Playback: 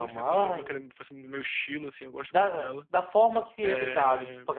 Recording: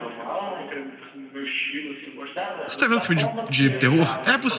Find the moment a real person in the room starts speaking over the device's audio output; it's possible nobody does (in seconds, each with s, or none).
2.7 s